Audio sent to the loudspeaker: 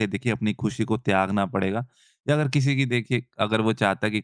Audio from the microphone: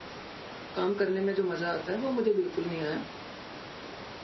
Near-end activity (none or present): present